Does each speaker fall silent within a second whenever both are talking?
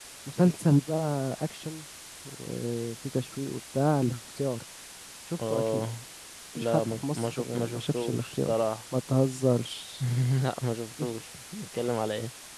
No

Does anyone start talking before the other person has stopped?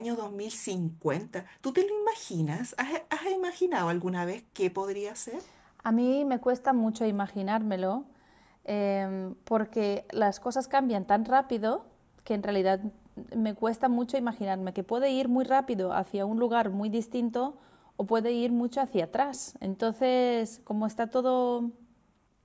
No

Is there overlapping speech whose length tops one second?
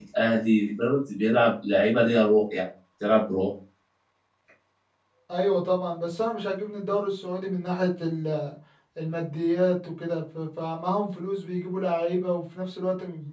No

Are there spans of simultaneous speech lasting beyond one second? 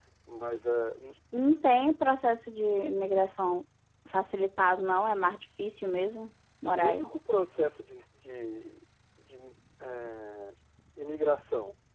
No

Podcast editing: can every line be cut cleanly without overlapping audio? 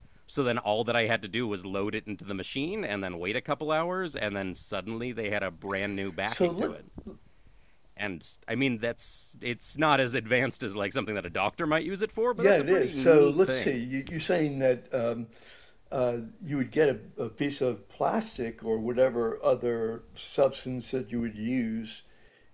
No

